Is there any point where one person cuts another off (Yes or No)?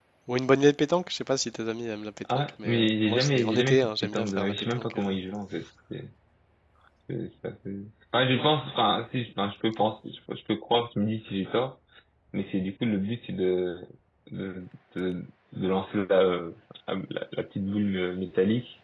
Yes